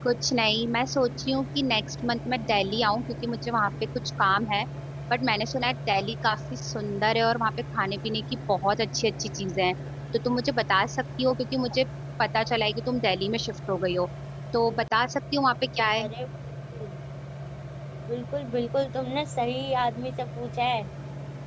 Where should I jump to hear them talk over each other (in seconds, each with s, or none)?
none